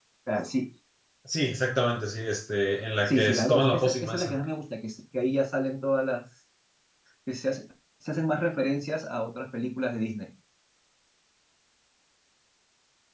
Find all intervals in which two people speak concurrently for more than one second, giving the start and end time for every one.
3.0-4.4

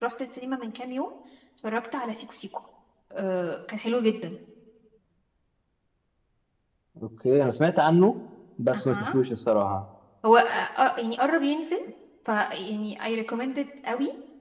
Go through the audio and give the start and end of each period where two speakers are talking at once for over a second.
none

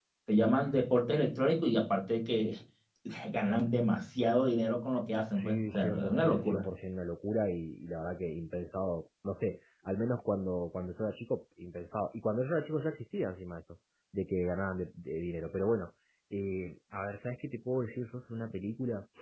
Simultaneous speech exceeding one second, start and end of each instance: 5.3-6.6

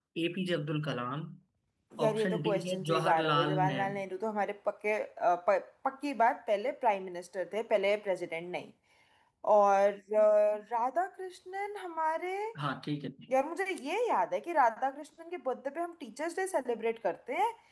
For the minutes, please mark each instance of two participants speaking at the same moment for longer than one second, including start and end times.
2.1-4.0

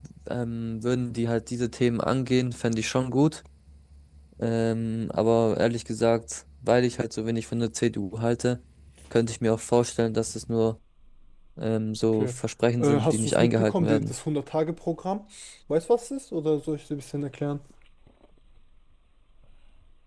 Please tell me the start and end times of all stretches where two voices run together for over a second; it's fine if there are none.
12.8-14.1

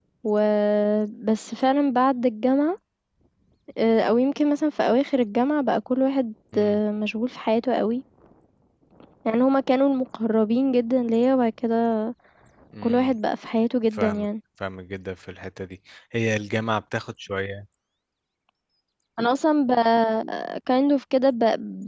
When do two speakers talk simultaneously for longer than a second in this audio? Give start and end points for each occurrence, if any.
none

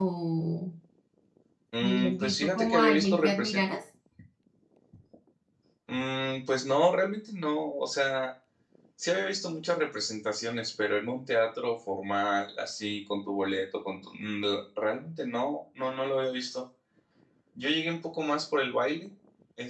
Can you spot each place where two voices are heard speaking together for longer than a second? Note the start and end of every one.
1.8-3.6

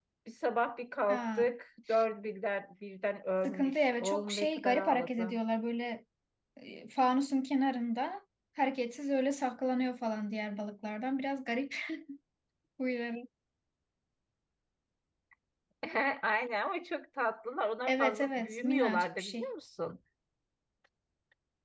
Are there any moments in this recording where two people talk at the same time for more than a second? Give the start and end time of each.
3.4-5.3, 17.9-19.4

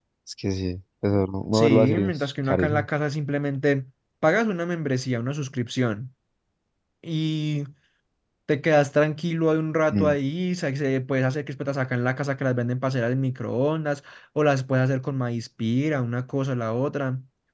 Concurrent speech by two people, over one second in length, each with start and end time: 1.5-2.9

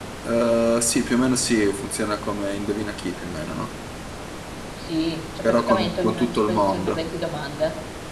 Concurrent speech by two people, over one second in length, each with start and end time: 5.4-7.0

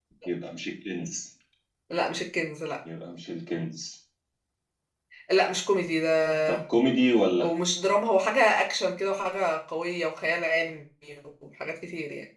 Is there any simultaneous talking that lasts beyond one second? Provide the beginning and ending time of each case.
none

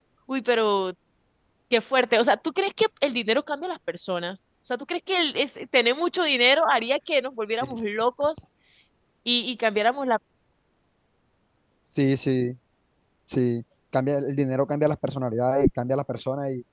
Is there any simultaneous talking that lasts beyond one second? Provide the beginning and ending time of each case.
none

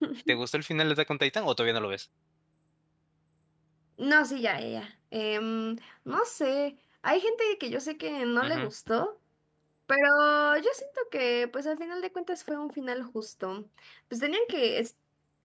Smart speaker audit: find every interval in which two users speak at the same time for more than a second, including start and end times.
none

